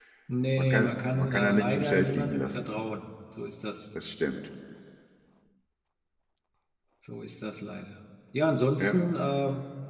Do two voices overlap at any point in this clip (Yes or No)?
Yes